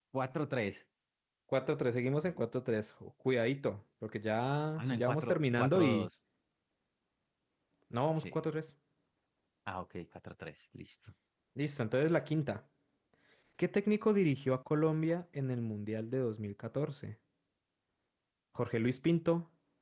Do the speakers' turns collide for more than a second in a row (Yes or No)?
Yes